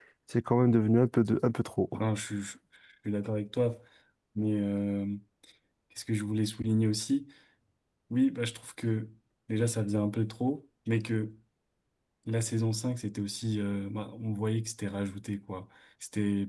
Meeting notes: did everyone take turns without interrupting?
Yes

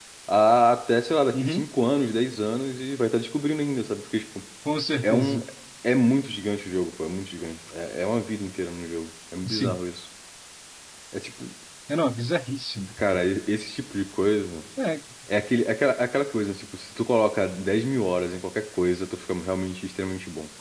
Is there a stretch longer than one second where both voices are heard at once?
No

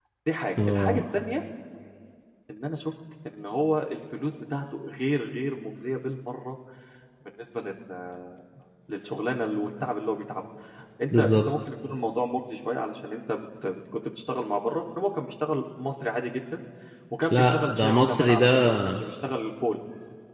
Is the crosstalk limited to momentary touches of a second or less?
No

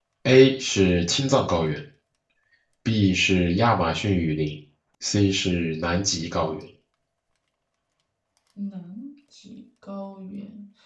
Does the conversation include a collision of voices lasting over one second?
No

